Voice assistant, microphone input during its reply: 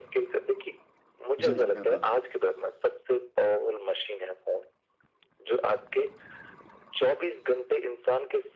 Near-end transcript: जी, जी, बिल्कुल।

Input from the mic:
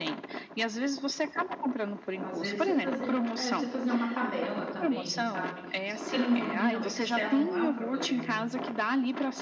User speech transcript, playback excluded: Às vezes você fazia é, você fazia uma tabela também, sabe. Se você não domina o Excel, não é um problema,

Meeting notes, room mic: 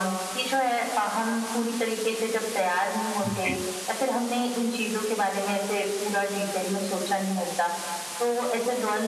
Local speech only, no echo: जी।

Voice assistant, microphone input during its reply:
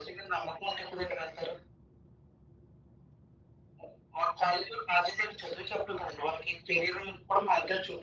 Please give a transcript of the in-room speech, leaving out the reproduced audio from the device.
none

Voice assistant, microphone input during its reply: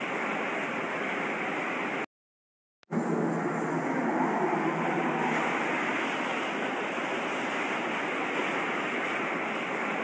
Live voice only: none

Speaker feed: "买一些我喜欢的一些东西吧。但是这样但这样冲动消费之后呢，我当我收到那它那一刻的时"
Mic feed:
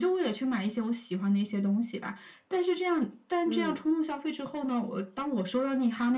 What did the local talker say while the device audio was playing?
嗯

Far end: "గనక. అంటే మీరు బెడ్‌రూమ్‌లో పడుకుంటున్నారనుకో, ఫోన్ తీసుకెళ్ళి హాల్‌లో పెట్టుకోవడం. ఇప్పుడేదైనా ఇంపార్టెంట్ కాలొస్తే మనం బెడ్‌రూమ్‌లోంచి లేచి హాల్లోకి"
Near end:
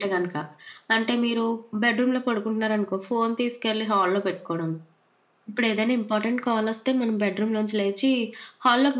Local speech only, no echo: none

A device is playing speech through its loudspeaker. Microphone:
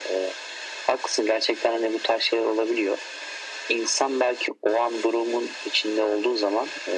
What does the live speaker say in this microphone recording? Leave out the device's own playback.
none

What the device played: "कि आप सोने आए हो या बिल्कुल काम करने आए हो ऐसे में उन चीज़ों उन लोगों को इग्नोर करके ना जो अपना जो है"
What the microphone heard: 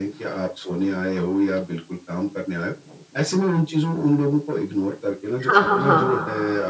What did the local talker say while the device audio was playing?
हाँ, हाँ, हाँ,

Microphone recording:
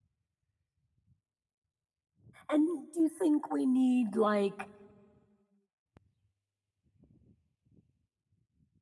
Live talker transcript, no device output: And do you think we need like

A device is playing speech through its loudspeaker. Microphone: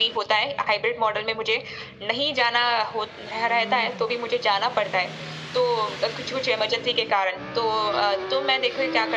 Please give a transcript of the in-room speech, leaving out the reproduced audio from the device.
none

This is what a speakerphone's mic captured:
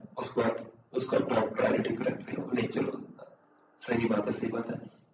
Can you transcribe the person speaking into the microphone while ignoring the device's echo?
none

